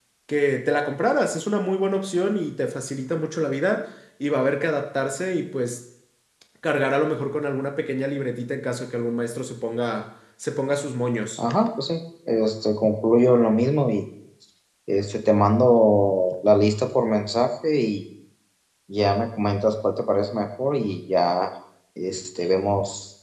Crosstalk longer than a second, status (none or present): none